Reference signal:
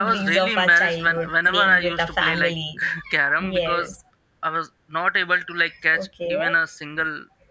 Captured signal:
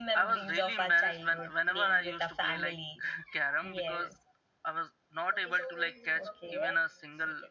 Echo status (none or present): present